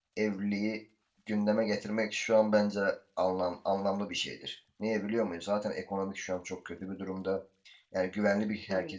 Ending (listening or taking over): taking over